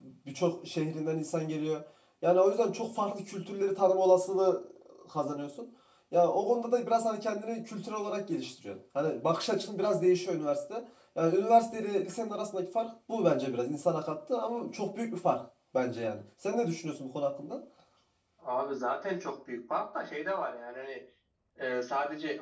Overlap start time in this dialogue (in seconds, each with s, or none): none